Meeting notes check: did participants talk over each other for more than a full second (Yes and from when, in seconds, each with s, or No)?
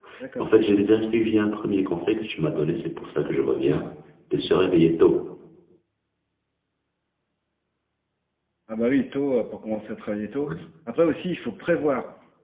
No